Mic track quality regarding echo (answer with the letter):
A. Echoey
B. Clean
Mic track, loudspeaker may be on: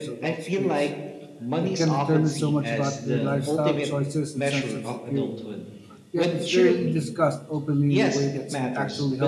A